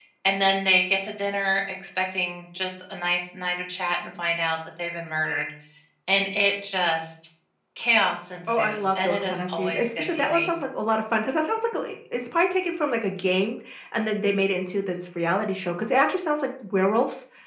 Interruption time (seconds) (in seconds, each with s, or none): 8.5 s